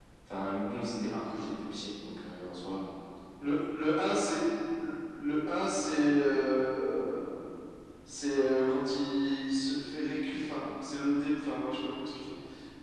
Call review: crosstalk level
none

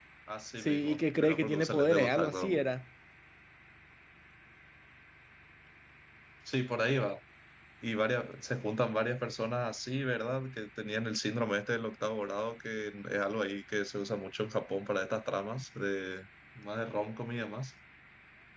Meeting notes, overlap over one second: present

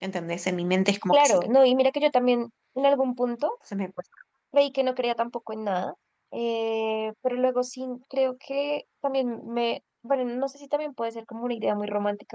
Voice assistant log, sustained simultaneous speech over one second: none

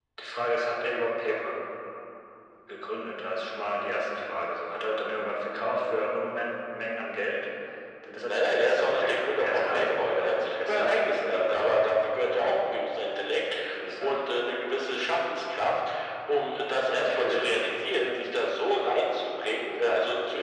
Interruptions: present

